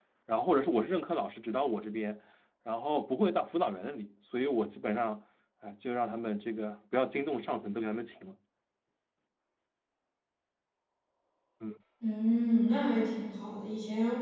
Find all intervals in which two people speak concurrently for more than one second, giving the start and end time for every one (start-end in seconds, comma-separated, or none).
none